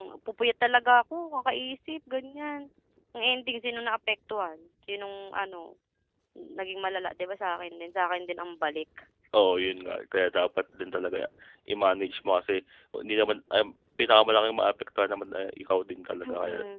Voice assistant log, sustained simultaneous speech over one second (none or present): none